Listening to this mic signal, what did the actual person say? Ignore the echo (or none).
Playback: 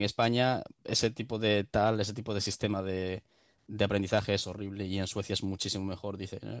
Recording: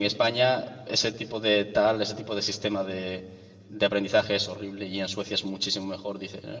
none